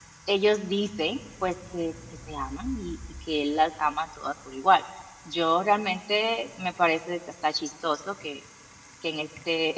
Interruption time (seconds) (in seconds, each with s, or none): none